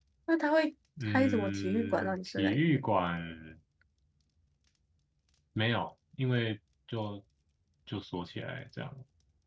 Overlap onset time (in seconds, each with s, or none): 1.1 s